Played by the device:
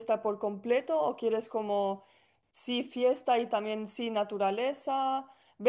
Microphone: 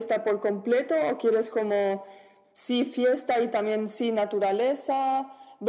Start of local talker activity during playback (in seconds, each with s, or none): none